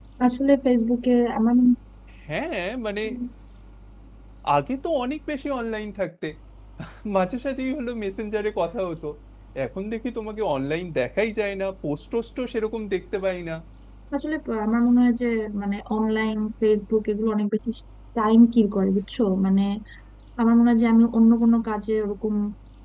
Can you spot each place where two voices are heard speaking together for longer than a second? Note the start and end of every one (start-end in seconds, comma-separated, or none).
none